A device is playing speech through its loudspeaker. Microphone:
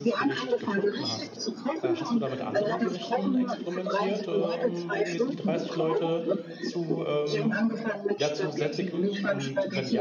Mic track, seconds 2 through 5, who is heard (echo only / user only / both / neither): both